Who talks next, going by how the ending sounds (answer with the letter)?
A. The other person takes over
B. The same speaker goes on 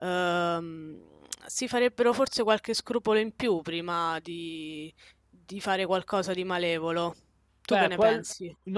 A